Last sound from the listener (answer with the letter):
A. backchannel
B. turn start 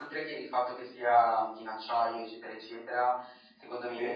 A